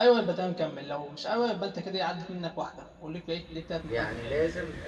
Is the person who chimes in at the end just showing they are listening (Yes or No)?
No